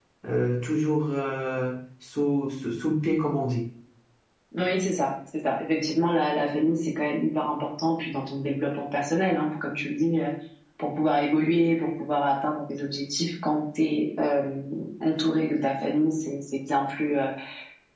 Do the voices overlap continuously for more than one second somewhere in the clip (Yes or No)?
No